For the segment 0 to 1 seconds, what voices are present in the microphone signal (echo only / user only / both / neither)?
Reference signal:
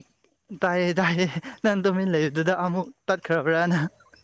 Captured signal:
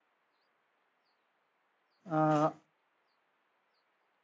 neither